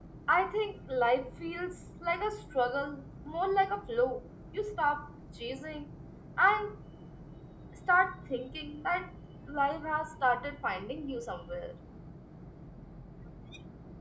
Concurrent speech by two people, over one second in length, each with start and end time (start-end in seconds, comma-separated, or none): none